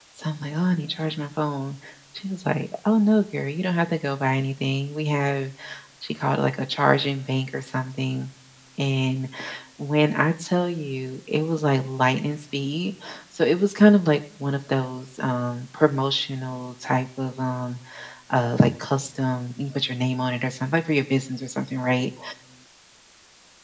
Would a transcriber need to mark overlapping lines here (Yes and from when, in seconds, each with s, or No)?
No